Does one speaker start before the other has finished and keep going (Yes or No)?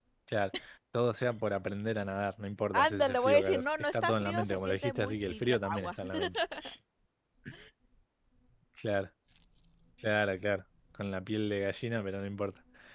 Yes